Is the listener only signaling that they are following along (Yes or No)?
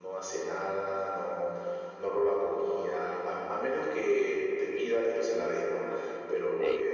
Yes